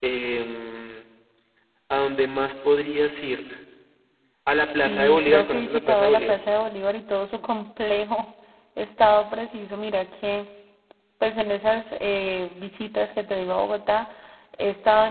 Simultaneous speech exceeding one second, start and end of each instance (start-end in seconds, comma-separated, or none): 4.8-6.3